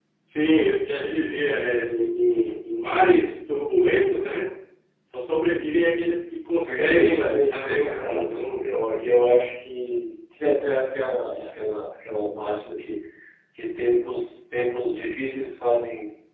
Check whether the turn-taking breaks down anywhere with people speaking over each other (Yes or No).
Yes